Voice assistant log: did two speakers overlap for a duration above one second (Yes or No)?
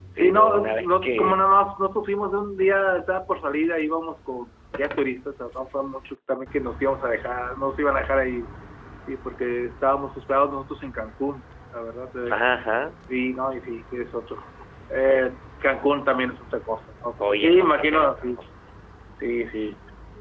Yes